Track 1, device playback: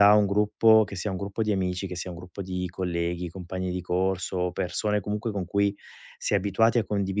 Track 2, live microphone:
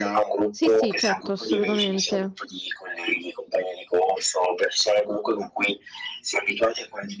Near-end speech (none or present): present